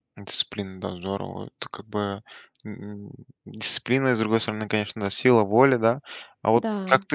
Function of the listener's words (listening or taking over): listening